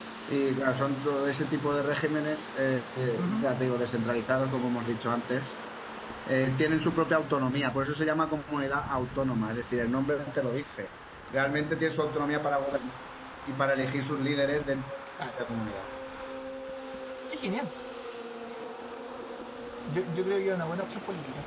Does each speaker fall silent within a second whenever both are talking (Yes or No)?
Yes